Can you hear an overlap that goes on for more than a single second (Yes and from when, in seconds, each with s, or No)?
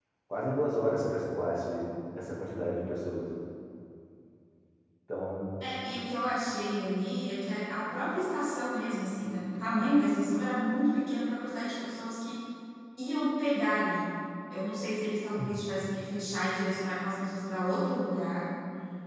No